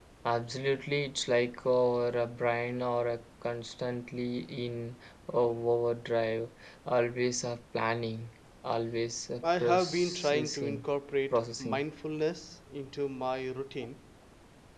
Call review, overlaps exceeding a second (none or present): present